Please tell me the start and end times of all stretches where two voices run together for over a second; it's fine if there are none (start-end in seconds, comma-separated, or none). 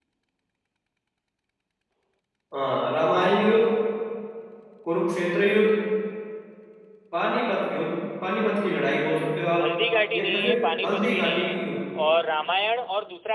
10.1-11.6